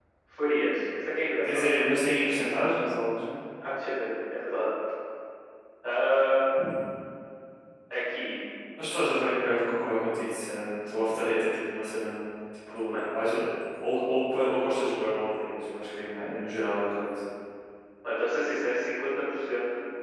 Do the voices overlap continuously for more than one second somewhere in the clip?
No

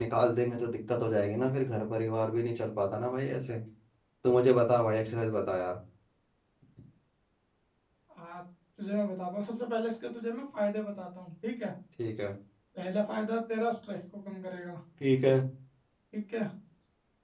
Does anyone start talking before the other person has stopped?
No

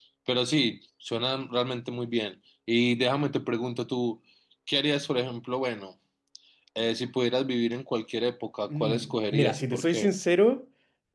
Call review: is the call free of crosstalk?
No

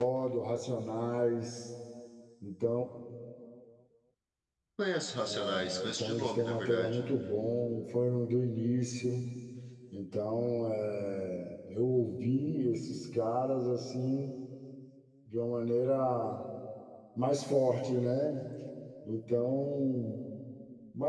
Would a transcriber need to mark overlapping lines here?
Yes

